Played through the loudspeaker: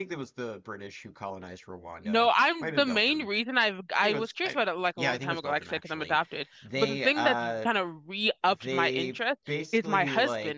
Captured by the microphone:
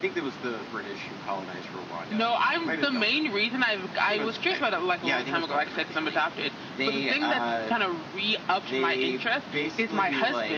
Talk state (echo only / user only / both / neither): echo only